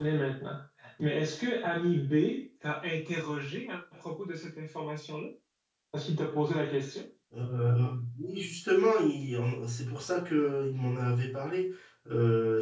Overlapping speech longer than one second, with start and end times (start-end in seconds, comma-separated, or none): none